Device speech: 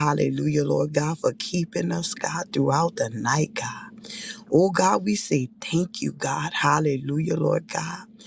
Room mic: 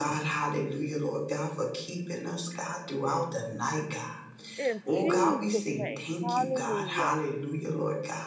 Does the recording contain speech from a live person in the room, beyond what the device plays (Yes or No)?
Yes